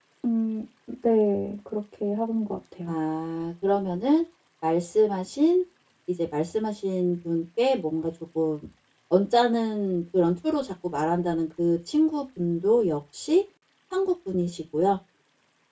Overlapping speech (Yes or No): No